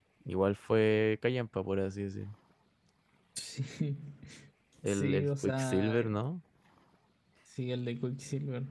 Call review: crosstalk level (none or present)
present